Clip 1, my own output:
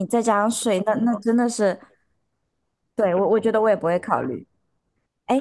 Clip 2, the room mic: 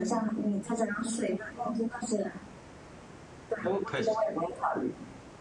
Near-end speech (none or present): present